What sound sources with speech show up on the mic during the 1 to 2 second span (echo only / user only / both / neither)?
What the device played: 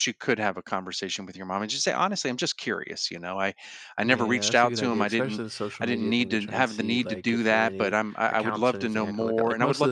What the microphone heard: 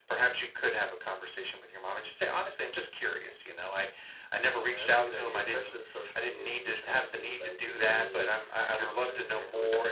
echo only